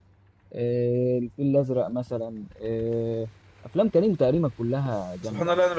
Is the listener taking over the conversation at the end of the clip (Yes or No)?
Yes